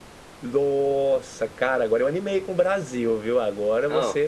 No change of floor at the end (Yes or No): Yes